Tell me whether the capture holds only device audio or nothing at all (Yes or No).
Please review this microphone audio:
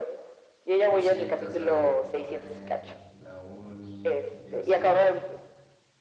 No